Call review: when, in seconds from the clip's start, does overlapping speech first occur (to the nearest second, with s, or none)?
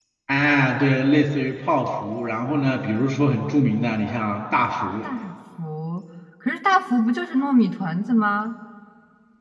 none